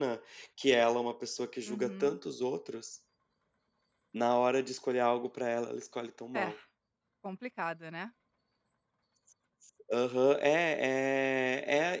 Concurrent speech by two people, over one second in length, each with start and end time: none

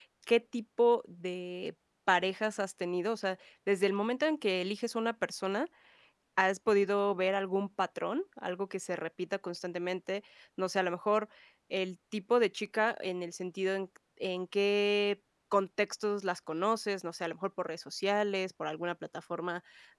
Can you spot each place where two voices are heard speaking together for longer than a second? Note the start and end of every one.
none

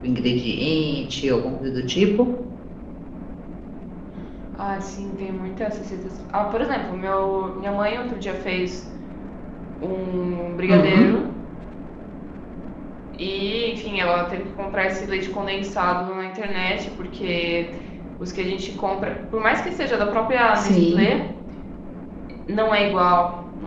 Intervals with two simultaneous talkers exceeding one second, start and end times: none

